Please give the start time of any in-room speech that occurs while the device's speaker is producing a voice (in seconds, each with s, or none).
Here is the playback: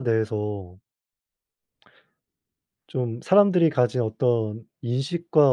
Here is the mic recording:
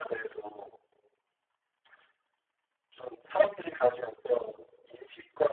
none